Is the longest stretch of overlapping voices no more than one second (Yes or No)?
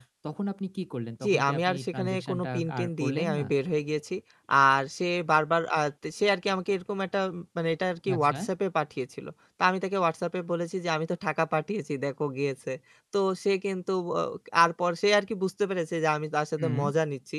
No